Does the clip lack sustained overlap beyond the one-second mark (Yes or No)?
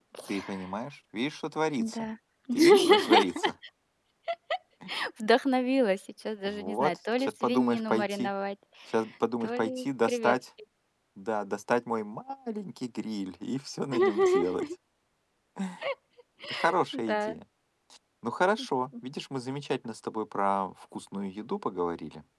No